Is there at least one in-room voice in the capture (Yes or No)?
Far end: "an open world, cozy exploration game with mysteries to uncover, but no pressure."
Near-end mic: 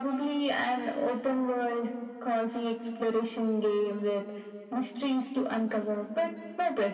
No